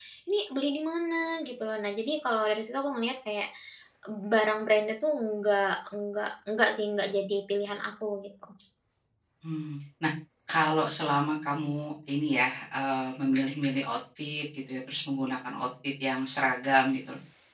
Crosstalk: none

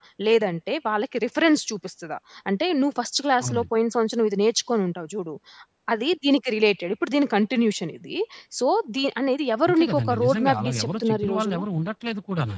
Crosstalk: present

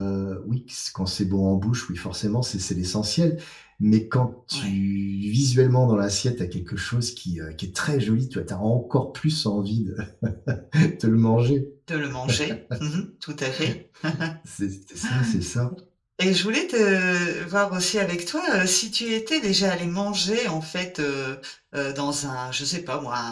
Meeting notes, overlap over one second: none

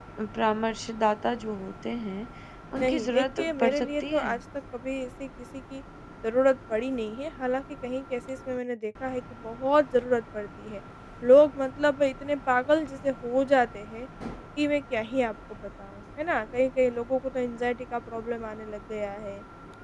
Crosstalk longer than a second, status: present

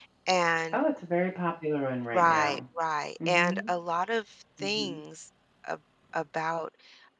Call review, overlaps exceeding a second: none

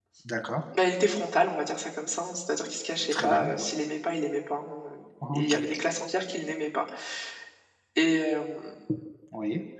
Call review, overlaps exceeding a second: none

